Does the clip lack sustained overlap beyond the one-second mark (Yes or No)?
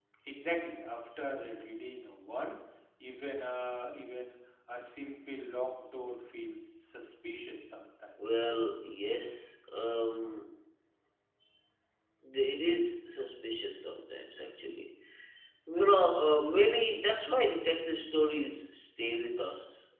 Yes